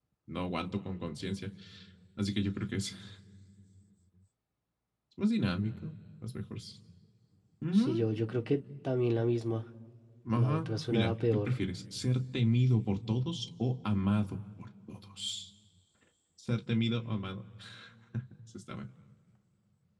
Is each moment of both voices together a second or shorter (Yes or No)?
No